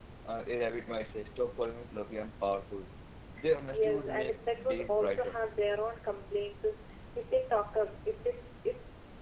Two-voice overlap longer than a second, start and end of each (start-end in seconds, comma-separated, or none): 3.7-5.4